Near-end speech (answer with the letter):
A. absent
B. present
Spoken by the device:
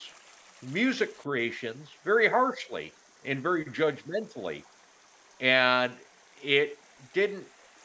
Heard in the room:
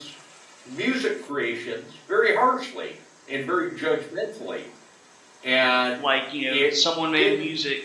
B